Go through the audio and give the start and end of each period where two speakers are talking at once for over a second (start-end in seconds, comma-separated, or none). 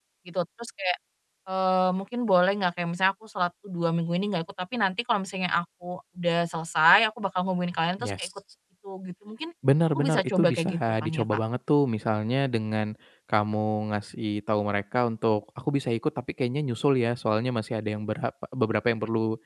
9.9-11.3